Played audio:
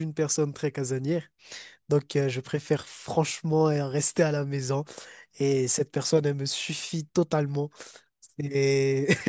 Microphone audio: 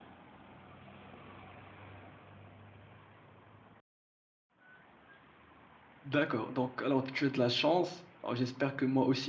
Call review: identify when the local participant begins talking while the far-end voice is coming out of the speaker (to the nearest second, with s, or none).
6 s